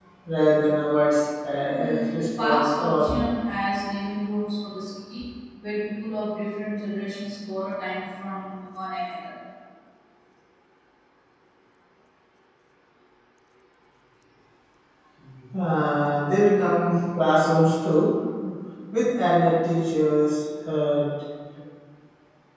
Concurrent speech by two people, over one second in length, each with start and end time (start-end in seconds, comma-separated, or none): 1.7-3.2